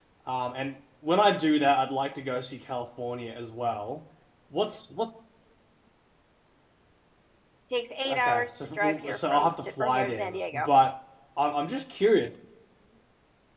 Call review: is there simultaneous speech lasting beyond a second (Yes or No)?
Yes